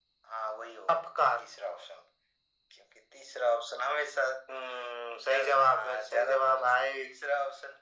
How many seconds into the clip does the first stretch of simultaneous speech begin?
5.3 s

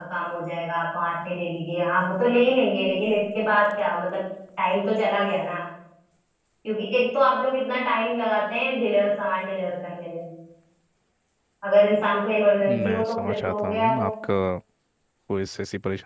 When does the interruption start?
12.6 s

